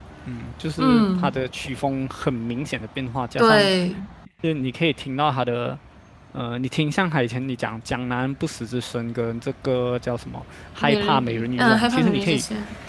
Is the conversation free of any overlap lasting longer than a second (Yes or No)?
No